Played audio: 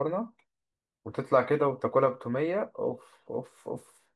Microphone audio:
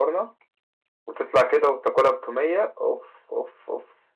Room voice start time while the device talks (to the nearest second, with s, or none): none